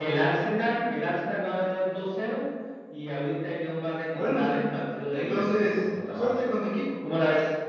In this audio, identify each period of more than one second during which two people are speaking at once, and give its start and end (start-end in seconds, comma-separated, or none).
5.1-6.4